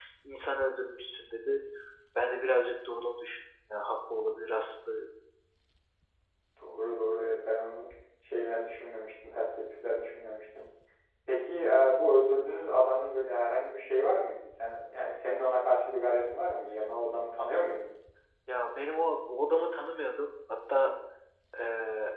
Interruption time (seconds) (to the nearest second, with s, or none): none